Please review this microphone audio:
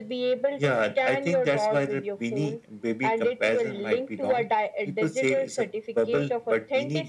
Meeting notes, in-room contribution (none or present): none